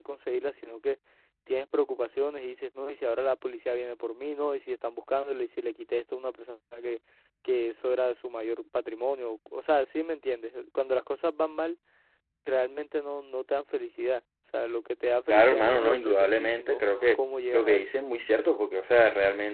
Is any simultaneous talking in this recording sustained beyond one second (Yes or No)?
Yes